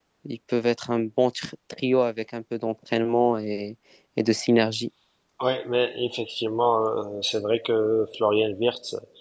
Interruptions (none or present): none